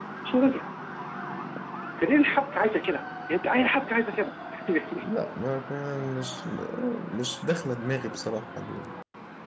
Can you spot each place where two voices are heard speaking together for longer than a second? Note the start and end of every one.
none

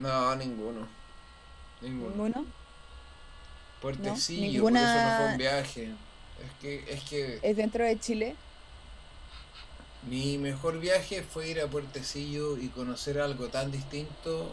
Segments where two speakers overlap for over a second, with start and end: 4.0-5.4

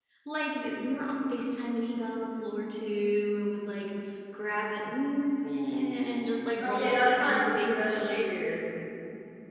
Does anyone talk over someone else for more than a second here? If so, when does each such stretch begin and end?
6.6-8.3

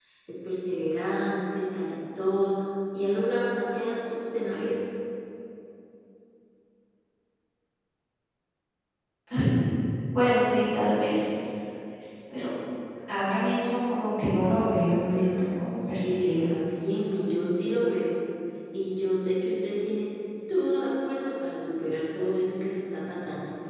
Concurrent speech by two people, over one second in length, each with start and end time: 15.0-16.5

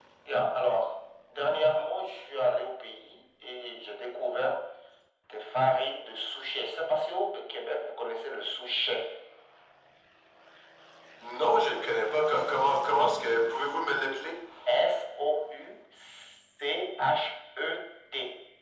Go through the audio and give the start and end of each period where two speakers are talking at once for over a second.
none

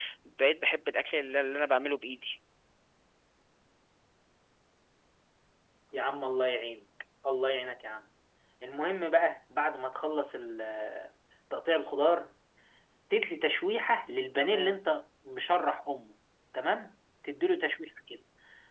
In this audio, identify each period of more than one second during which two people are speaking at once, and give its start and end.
none

